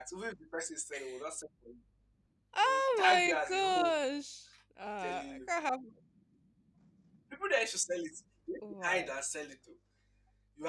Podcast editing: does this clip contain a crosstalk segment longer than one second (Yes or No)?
Yes